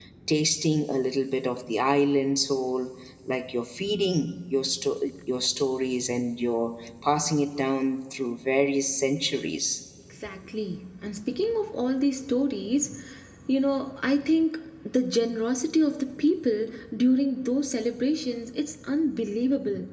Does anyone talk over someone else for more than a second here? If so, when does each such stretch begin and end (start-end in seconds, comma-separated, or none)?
none